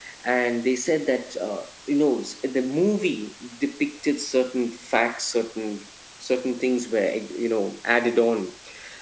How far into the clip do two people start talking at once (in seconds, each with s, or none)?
none